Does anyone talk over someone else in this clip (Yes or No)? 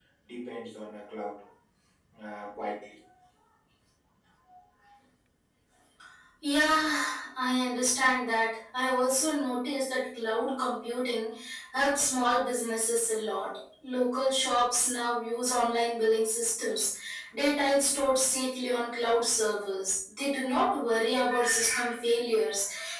No